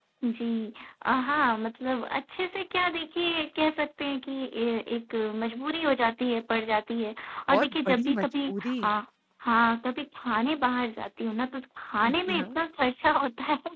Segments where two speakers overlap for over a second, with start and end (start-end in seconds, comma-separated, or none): 7.5-8.9